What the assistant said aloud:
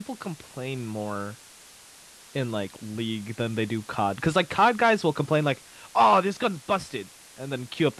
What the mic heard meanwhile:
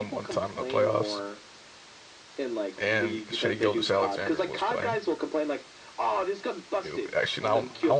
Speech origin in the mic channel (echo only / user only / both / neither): both